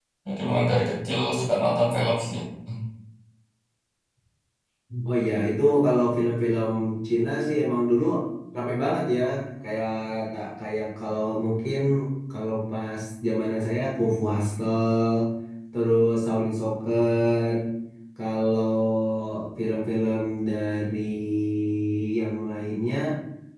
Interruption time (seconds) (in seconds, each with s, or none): none